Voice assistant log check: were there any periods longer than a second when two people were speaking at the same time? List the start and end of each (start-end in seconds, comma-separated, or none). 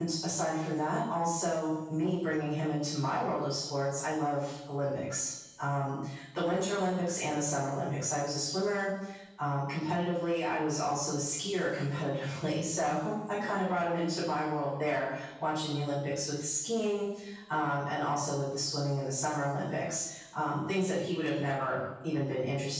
none